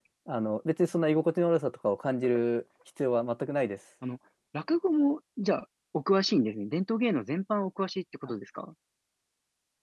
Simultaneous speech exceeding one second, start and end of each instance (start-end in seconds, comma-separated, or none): none